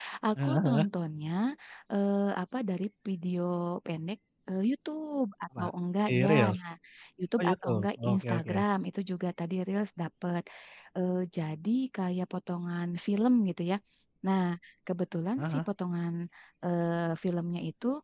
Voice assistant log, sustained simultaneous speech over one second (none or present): present